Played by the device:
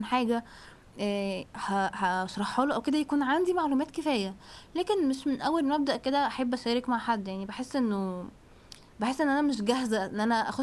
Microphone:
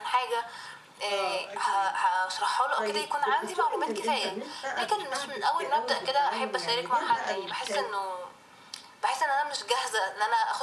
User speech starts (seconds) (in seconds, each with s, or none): 1.1 s